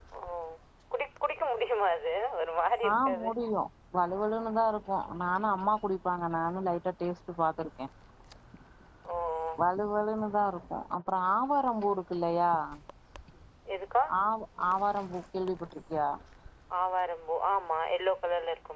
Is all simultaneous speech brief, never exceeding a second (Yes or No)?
Yes